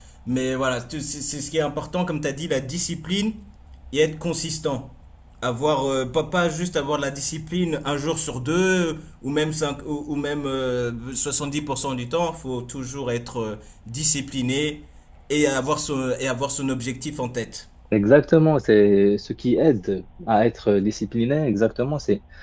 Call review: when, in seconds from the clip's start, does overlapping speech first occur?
none

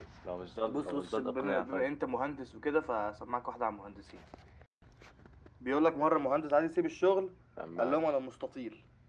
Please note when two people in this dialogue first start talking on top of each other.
0.7 s

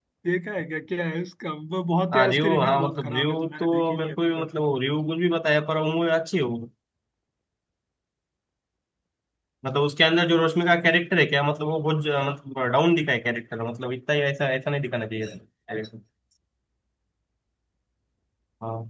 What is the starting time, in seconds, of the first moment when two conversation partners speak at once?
2.1 s

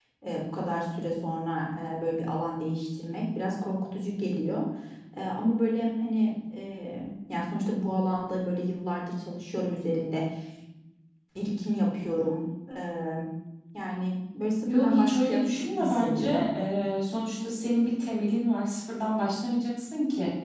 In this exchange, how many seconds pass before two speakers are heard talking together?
14.7 s

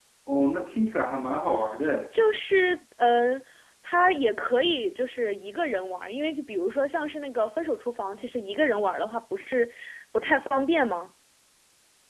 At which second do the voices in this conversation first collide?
none

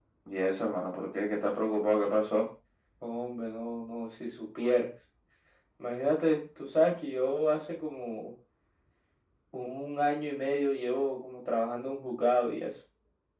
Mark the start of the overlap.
none

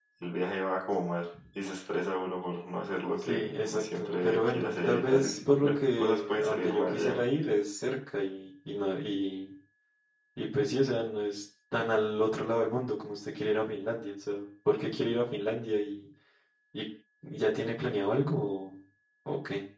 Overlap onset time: 3.2 s

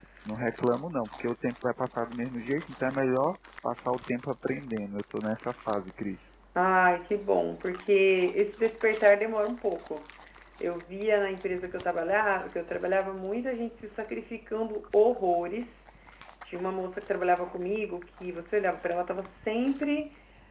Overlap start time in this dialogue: none

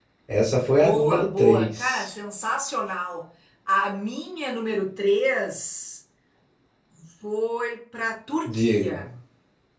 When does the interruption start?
0.7 s

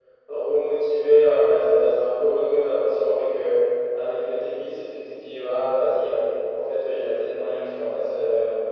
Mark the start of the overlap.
none

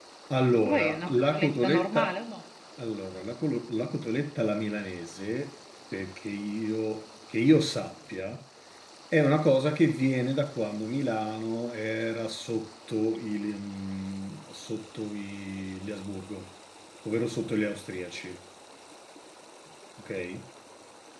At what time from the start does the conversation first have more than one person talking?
0.5 s

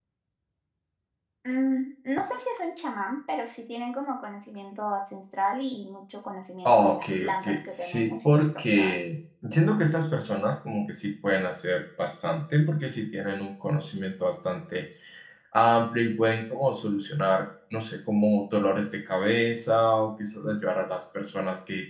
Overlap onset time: 6.7 s

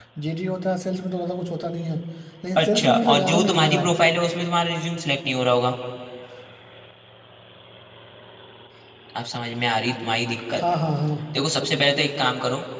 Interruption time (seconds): 2.6 s

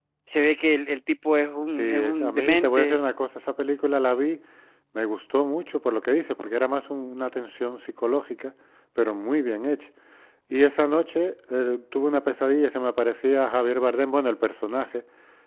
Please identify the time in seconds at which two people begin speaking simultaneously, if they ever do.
1.7 s

